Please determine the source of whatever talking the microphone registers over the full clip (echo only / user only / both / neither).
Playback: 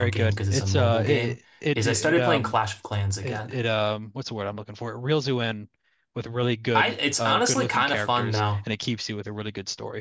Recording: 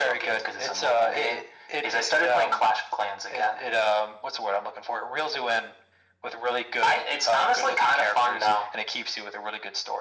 echo only